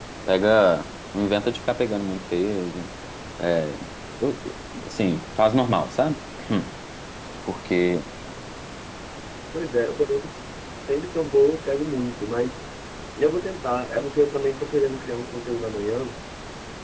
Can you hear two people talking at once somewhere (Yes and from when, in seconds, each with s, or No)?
No